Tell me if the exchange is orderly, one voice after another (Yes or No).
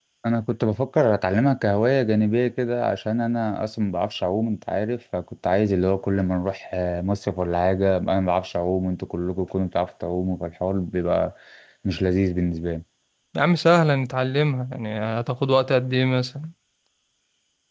Yes